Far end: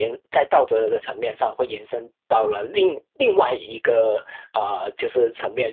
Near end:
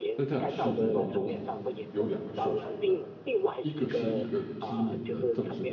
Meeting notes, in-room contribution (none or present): present